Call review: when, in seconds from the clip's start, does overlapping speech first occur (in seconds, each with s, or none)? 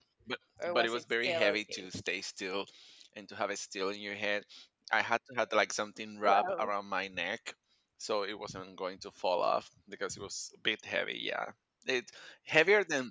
0.7 s